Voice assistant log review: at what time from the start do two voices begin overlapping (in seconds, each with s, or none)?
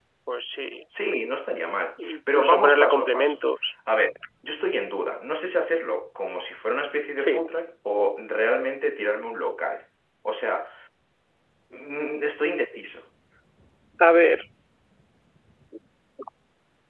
2.1 s